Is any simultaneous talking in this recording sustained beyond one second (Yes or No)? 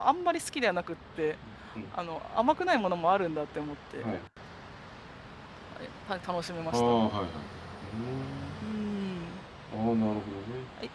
No